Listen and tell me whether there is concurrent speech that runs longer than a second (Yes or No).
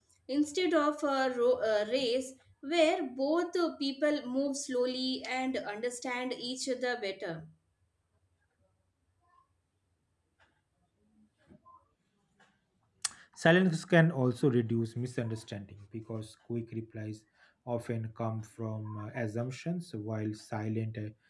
No